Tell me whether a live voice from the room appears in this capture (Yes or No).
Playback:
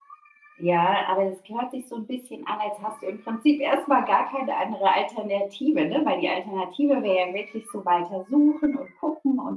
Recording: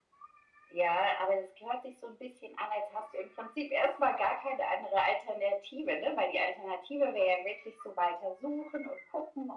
No